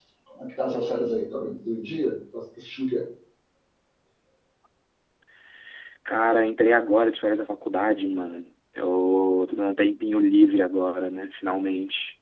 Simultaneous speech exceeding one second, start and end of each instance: none

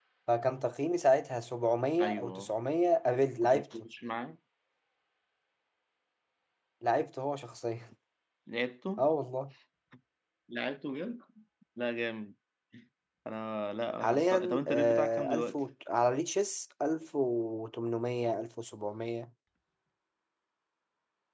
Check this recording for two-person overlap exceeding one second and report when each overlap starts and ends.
14.0-15.6

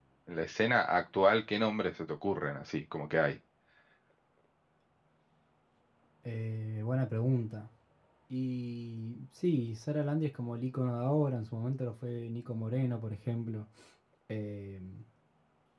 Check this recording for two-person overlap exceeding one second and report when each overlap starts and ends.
none

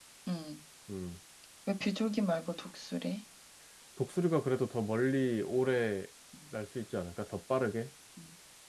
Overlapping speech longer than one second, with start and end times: none

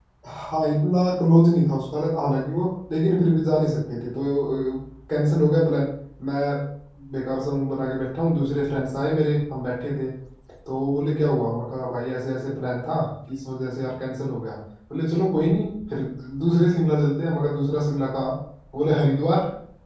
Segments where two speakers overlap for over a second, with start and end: none

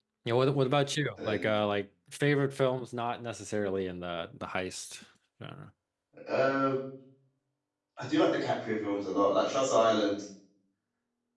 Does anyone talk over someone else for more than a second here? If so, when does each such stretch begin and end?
none

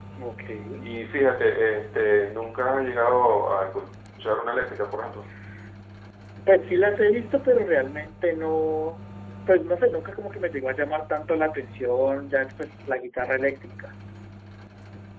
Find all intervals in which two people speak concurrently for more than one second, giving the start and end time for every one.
none

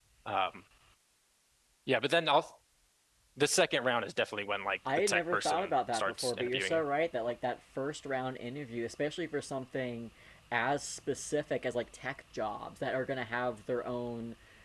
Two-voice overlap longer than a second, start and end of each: 5.1-6.8

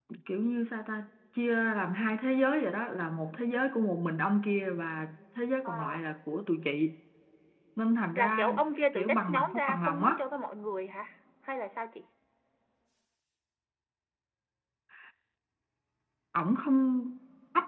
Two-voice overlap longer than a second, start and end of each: 9.0-10.2

